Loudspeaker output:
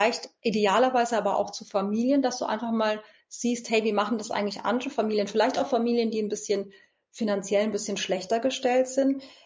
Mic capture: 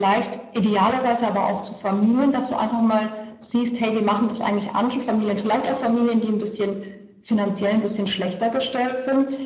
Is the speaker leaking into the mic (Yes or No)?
Yes